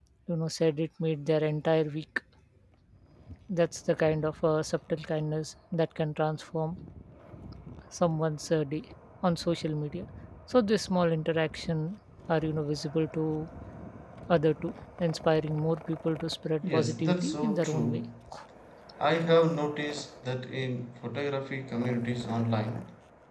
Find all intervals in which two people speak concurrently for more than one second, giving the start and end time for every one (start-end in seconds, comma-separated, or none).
16.7-18.0